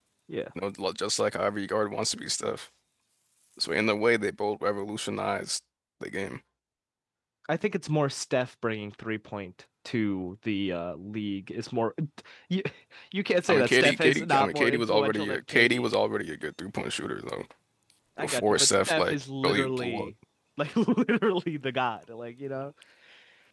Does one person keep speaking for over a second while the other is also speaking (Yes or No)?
Yes